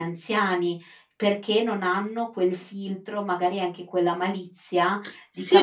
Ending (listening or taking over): taking over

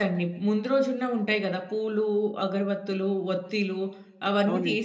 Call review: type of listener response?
listening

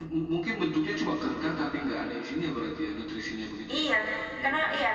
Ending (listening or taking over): taking over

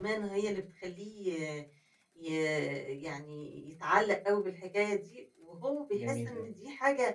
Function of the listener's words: listening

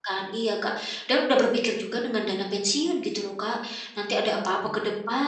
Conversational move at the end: listening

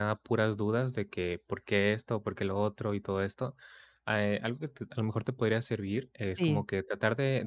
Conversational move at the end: listening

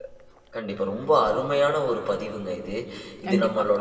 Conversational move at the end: listening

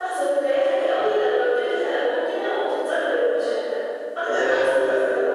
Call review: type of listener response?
taking over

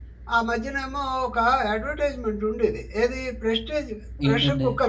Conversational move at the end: listening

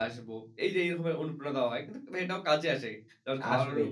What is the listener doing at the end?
listening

